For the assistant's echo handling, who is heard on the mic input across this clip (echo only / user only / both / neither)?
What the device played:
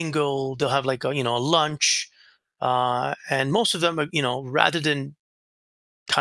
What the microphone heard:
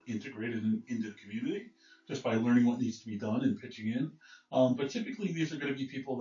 user only